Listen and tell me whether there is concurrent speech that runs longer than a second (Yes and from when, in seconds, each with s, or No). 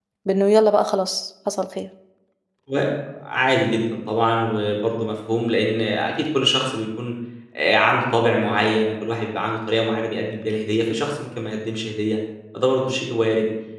No